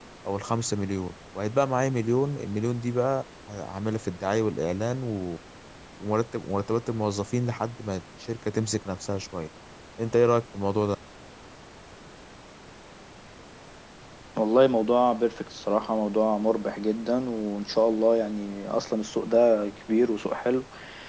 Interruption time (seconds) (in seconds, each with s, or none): none